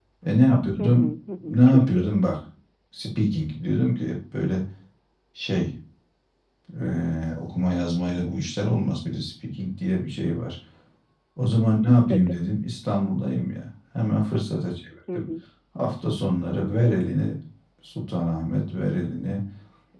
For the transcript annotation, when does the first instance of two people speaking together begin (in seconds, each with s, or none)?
0.8 s